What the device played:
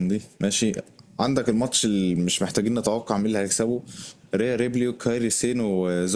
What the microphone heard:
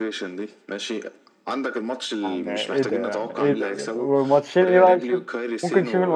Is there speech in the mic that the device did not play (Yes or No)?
Yes